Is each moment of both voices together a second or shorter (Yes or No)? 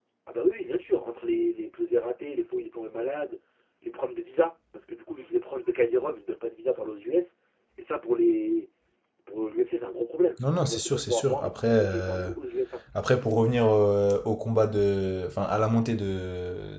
No